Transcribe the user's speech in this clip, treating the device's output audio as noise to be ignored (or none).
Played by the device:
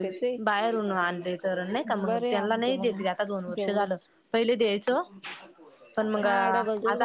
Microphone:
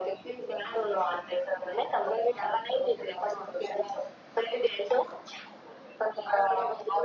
none